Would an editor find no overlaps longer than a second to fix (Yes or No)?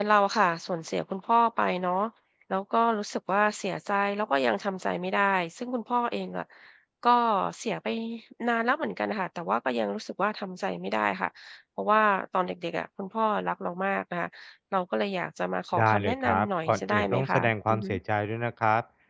No